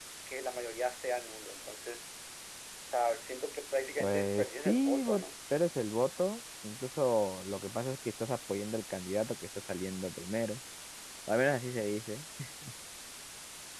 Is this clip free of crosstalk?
No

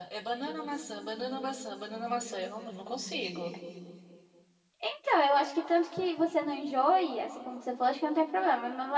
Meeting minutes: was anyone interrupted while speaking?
No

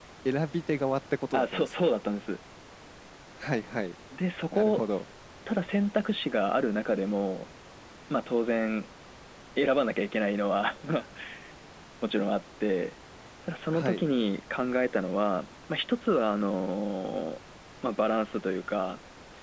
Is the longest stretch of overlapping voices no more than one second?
Yes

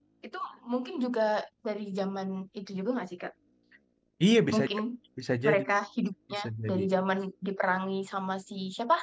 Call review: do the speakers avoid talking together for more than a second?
Yes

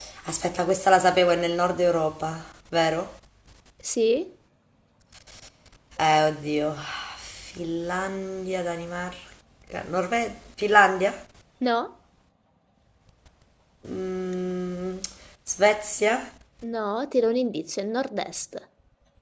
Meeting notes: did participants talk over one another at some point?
No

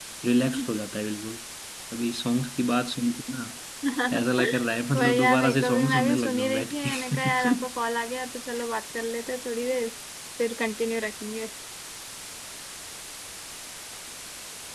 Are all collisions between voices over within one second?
No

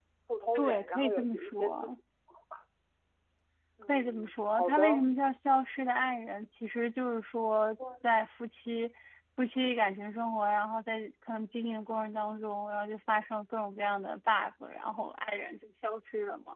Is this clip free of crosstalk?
No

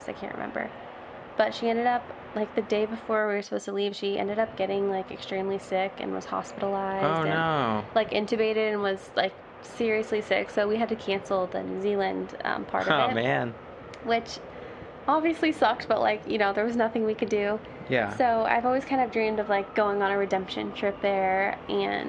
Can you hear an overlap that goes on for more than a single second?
No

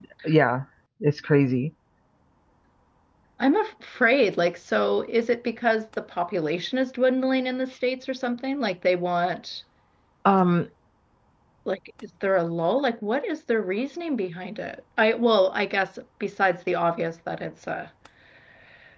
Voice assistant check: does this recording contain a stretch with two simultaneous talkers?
No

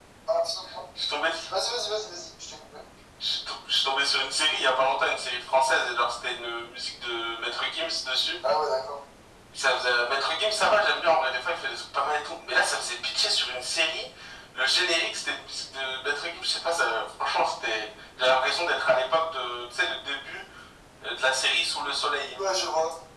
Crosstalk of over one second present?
No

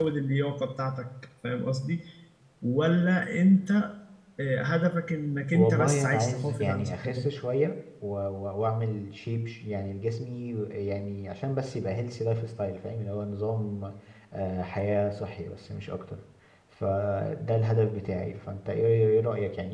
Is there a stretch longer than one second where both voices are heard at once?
Yes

